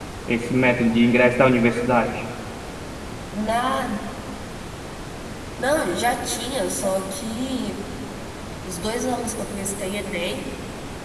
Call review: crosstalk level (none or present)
none